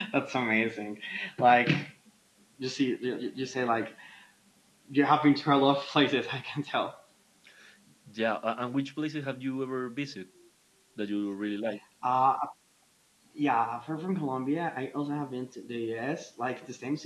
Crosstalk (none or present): none